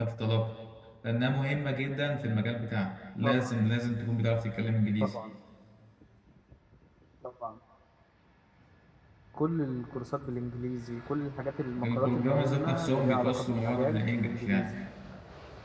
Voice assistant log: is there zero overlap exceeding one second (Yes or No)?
No